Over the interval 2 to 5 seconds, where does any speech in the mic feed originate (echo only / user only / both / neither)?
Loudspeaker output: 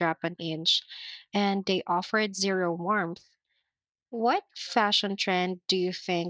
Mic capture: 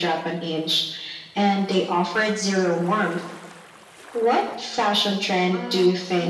echo only